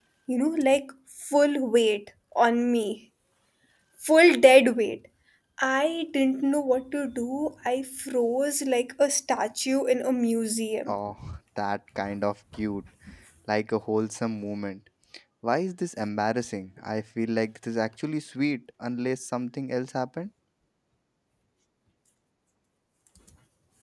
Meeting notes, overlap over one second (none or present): none